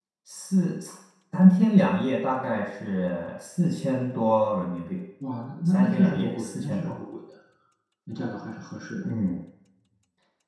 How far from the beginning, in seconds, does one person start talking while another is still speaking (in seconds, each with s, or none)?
5.7 s